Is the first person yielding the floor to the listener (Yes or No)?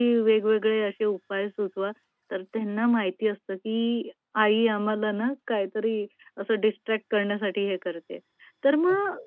No